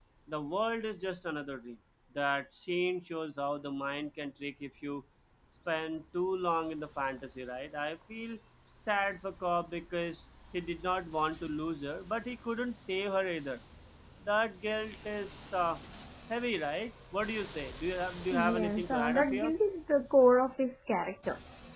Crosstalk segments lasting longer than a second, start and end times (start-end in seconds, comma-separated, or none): 18.3-19.5